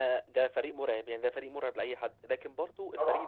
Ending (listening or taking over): listening